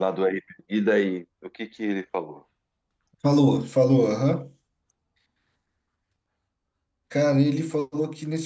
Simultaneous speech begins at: none

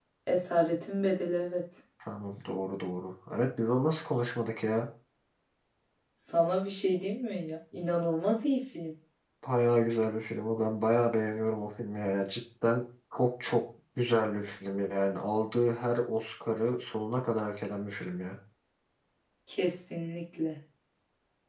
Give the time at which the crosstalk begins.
none

